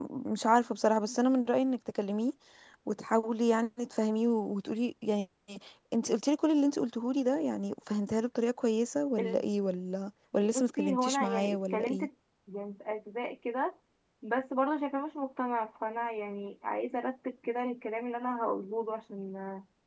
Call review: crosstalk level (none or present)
present